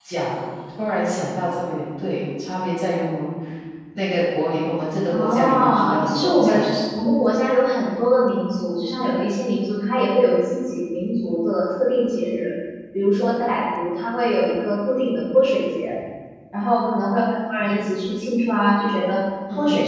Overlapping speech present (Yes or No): Yes